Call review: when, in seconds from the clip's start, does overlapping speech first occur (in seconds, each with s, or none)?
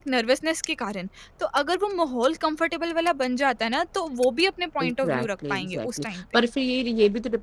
4.8 s